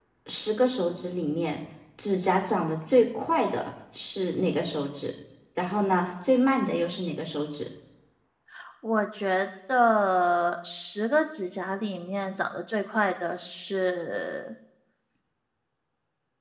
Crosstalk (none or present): none